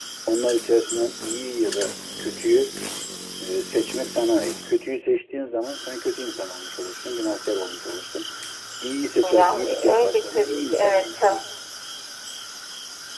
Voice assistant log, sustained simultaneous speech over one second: present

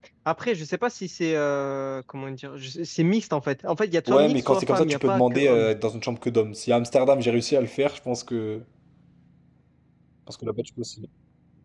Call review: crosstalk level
present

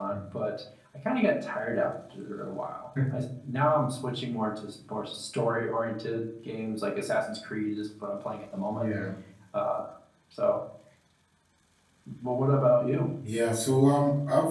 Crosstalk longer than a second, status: none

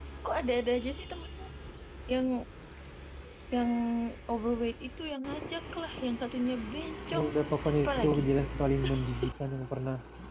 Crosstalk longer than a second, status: none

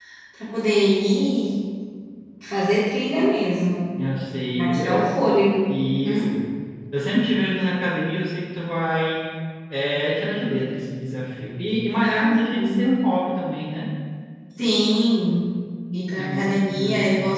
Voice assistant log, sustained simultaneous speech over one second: present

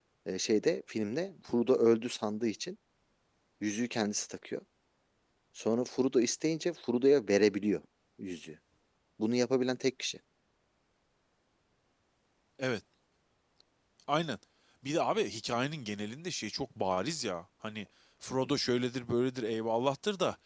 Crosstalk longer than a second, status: none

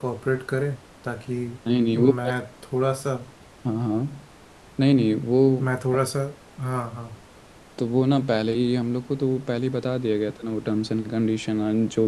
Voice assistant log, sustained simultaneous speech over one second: none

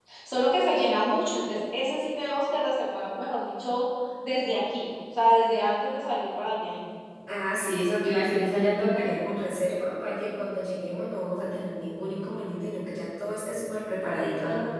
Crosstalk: none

